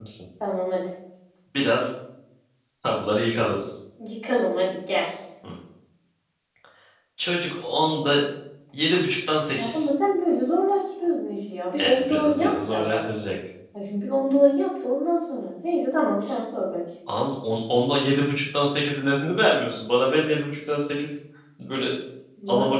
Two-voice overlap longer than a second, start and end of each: 11.8-13.1

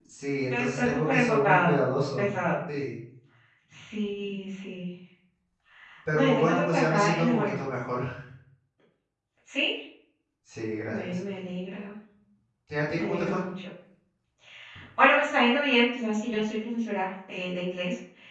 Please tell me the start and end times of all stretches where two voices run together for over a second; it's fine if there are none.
0.5-1.7, 6.1-7.5

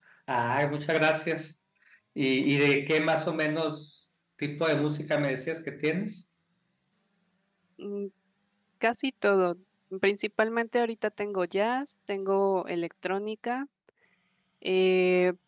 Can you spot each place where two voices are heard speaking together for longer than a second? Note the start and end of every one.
none

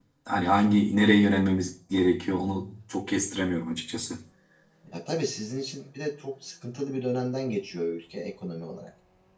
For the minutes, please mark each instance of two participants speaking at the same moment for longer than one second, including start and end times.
none

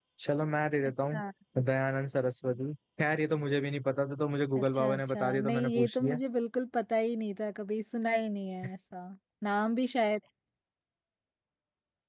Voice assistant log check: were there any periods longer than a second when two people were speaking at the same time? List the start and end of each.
4.6-6.2

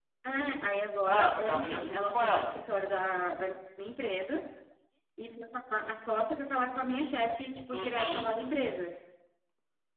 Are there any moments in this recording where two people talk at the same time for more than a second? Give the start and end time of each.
1.1-2.5

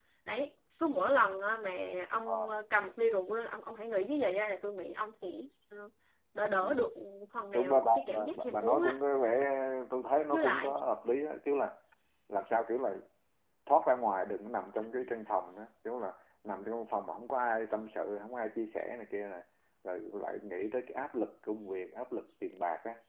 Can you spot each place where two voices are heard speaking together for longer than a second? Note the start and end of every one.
7.5-9.0

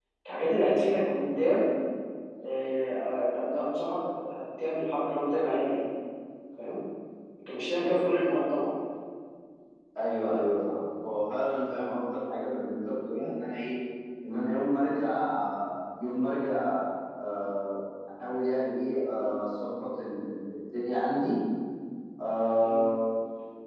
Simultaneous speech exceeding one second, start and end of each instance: none

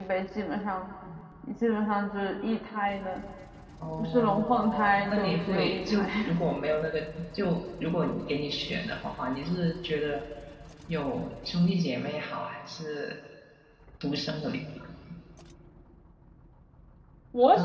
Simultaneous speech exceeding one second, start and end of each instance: 4.0-6.1

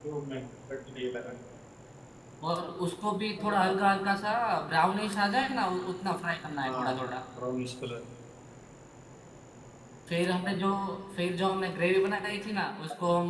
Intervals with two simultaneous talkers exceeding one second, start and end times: none

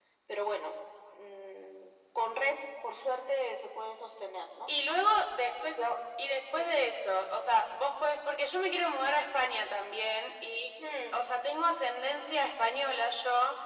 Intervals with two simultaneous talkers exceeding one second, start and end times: none

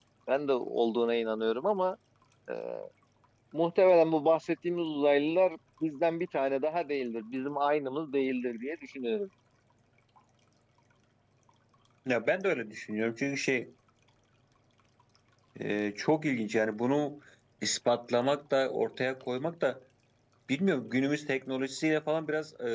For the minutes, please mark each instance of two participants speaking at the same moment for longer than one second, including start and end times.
none

